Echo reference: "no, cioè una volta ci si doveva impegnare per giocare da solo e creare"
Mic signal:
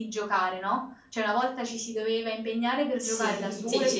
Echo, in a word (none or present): present